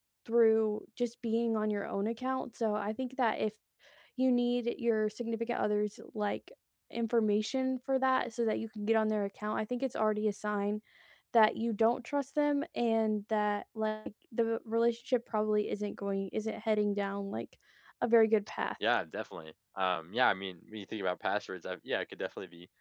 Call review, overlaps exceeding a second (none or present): none